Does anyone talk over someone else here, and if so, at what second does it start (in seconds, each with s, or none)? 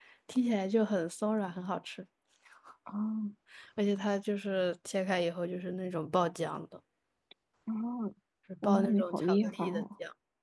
8.6 s